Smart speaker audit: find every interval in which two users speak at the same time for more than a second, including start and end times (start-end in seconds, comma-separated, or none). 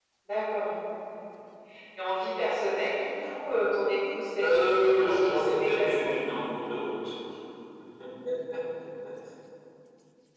4.4-6.0